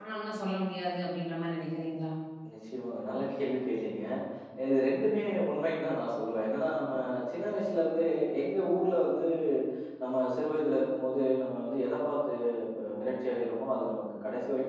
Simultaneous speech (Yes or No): No